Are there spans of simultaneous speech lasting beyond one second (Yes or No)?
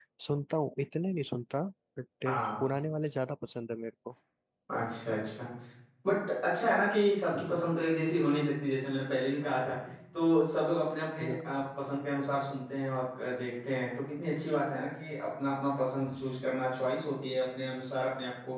No